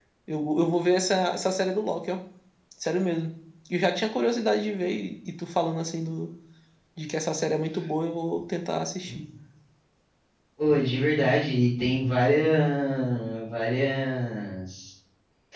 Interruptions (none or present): none